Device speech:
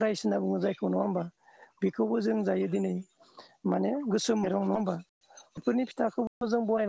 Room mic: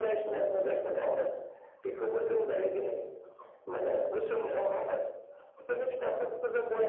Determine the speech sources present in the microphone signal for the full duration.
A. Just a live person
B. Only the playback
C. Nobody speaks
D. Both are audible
B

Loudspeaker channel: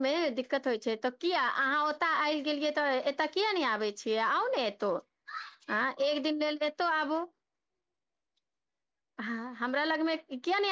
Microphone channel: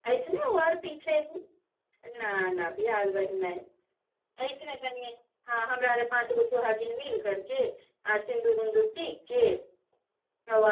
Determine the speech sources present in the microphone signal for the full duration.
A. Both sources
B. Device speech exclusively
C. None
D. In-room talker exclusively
D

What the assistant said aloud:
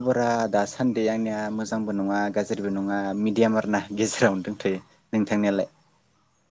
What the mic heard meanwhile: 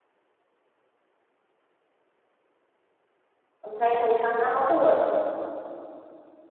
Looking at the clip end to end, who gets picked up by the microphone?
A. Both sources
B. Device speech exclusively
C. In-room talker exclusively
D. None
C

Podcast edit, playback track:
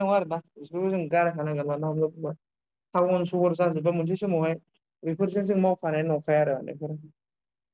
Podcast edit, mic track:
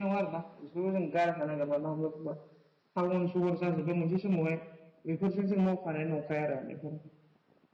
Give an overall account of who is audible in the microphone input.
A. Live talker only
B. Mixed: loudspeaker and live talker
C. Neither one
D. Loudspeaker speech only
D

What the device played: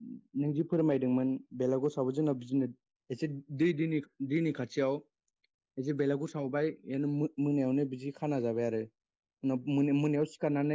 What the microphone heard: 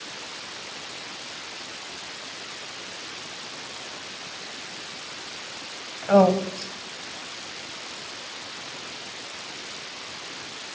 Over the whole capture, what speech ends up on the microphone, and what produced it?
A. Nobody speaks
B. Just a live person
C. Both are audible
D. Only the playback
B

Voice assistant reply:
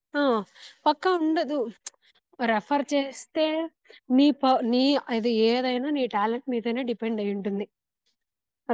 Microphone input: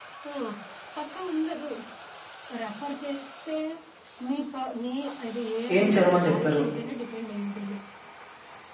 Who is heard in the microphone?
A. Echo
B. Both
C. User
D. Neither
B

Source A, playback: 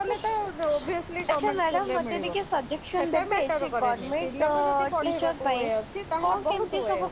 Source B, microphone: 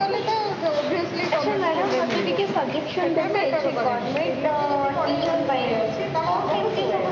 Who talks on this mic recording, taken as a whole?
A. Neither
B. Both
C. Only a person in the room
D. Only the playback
D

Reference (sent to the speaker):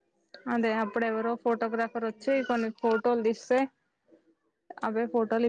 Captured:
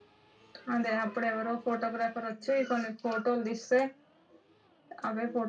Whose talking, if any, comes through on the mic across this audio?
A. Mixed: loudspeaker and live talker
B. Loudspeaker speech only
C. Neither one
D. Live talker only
B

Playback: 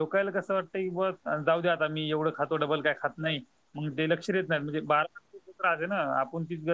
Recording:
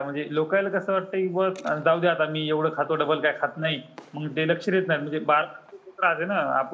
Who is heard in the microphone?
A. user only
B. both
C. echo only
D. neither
C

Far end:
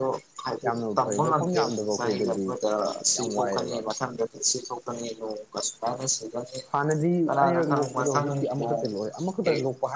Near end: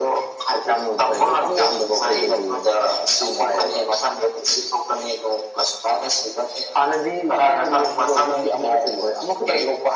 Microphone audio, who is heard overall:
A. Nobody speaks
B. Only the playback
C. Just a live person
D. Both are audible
B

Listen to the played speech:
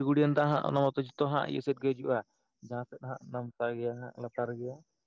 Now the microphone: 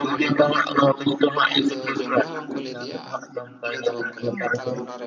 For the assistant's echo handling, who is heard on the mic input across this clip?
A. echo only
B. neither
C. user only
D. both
D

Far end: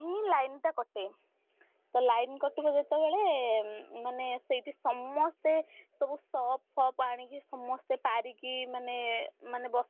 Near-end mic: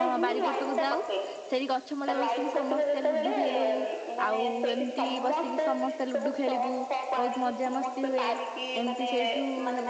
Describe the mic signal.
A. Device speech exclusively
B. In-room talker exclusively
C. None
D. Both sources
D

